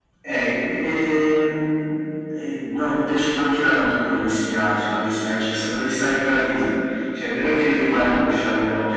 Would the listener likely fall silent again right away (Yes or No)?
Yes